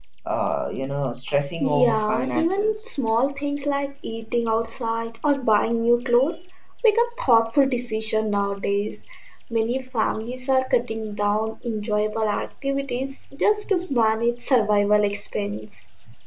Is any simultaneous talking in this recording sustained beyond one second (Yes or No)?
Yes